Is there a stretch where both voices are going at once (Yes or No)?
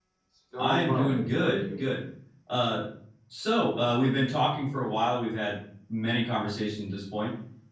Yes